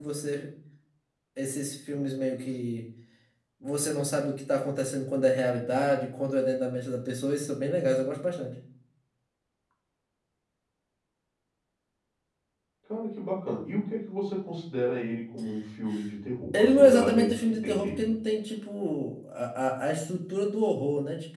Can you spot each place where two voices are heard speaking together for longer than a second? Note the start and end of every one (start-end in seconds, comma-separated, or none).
16.5-18.1